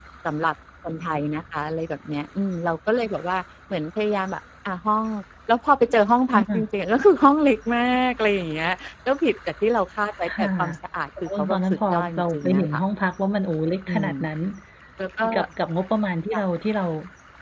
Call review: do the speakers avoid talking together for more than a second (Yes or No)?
No